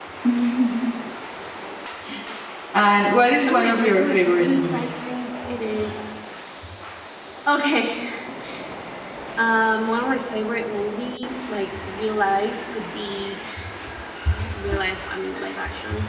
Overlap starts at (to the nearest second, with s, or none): 3 s